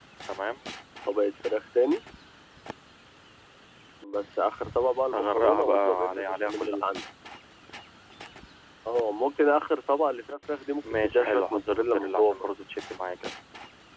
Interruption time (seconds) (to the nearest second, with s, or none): 5 s